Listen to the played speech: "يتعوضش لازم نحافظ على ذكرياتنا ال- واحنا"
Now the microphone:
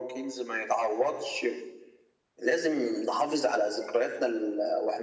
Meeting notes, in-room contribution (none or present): none